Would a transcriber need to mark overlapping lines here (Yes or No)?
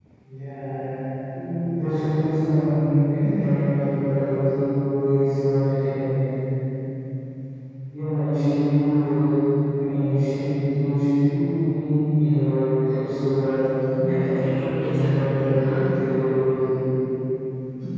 Yes